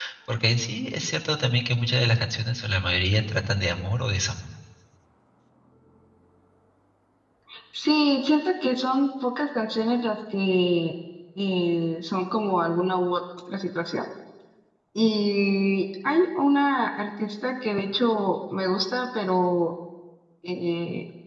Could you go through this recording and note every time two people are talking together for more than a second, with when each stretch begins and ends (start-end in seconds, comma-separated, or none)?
none